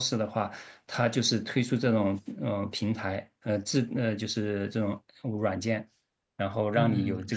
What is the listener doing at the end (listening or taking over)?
taking over